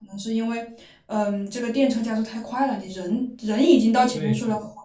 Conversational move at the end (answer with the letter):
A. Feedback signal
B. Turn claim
B